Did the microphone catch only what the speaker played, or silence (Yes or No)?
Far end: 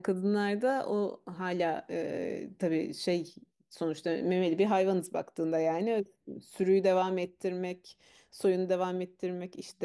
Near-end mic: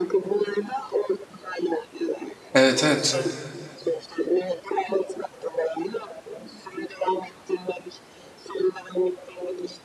No